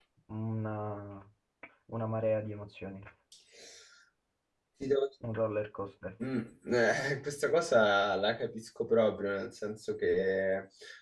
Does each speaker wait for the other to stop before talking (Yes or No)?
Yes